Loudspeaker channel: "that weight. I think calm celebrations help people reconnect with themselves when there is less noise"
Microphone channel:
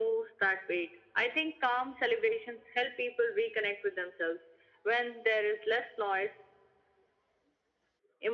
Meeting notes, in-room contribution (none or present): none